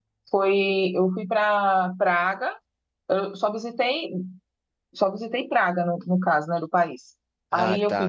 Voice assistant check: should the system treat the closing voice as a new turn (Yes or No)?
No